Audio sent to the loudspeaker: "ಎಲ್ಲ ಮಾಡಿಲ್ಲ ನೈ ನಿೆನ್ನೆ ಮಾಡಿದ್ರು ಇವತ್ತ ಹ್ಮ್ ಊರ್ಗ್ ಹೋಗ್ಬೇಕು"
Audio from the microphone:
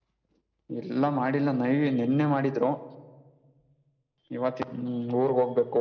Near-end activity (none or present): none